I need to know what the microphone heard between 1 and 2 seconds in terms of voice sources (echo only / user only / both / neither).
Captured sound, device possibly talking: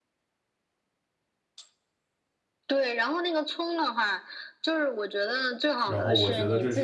neither